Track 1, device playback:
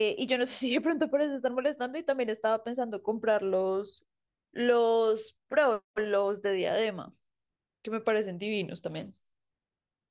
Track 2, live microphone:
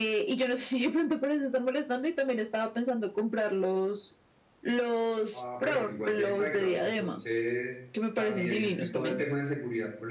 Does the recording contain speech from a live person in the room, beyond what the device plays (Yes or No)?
Yes